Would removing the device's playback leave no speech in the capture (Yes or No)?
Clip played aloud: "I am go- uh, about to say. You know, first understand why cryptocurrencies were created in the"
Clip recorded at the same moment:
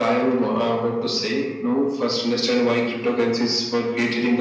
Yes